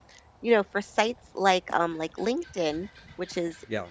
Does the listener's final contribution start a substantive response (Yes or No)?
No